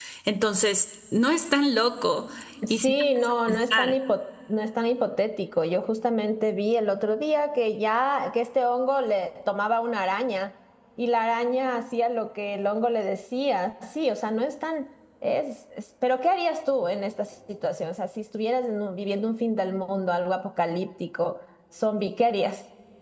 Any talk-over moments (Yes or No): Yes